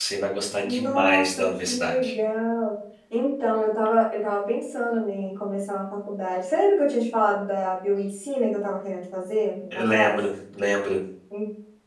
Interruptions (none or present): present